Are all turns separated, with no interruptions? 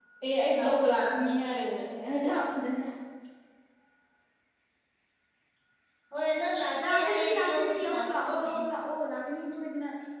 No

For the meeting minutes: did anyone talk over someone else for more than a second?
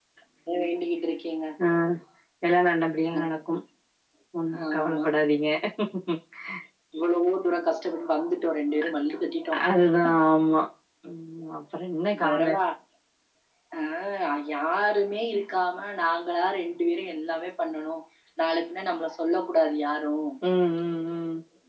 No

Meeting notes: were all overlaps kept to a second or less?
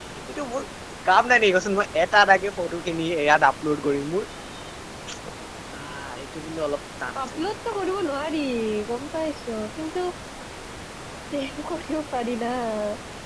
Yes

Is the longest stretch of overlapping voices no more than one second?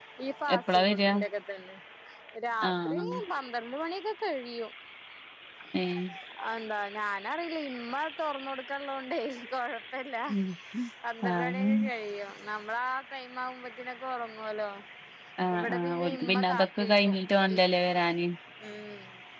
No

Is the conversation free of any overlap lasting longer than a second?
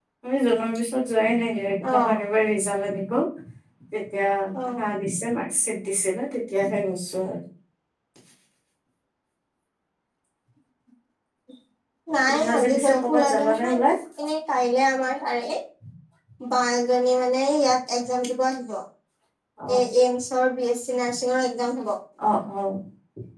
No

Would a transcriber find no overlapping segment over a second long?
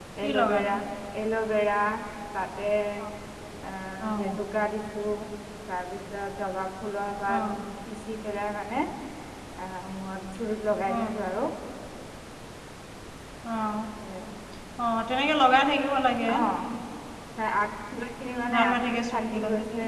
No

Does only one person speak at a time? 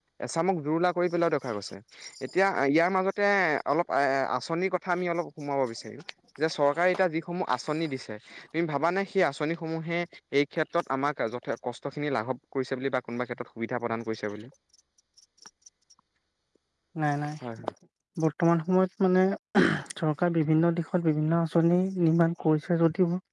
Yes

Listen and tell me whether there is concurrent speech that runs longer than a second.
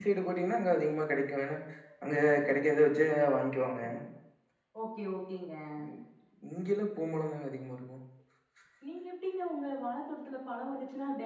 No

